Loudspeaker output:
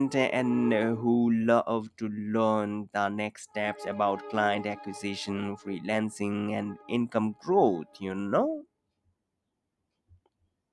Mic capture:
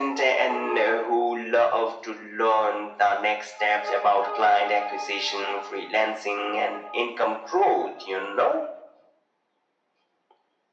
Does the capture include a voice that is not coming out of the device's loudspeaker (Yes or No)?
No